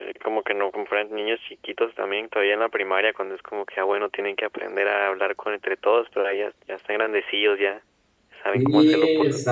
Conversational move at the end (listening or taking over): taking over